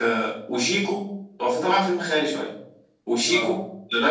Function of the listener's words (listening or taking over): listening